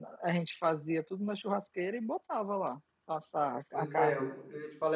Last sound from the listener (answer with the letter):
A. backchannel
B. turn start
B